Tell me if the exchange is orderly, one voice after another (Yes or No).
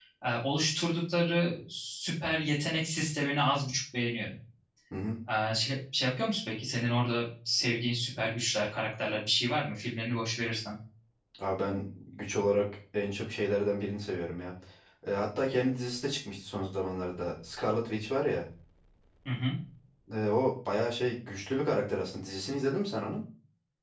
Yes